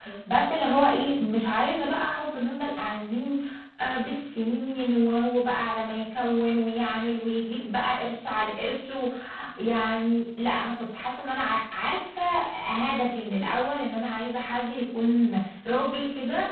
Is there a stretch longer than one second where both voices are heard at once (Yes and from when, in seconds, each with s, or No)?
No